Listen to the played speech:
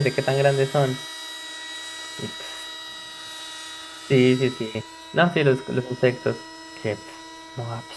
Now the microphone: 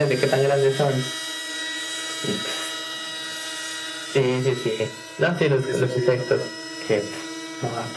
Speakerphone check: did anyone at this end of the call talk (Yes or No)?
Yes